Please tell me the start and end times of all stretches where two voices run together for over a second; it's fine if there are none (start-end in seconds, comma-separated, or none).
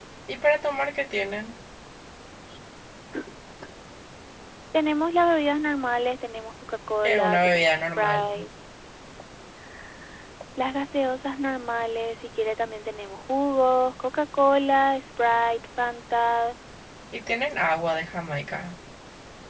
7.0-8.4